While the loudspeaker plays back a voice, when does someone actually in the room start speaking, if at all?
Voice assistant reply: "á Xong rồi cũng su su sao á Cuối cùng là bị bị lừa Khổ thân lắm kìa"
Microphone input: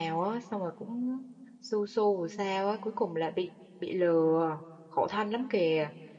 none

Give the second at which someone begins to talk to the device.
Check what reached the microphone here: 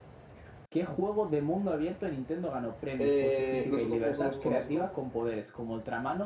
3.0 s

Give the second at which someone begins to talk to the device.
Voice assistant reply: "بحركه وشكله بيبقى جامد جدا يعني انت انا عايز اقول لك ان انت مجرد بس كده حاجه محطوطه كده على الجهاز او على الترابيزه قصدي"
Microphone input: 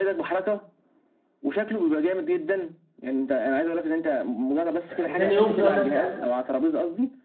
4.8 s

